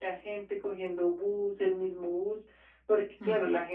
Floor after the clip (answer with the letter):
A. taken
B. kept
B